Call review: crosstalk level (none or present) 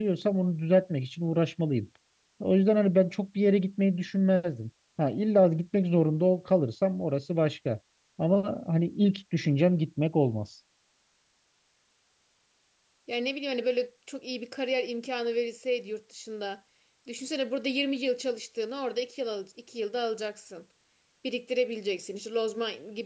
none